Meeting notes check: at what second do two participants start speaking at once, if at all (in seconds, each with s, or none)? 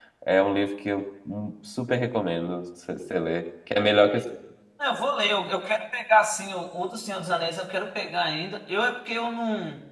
none